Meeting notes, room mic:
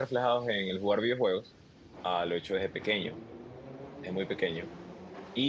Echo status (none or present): none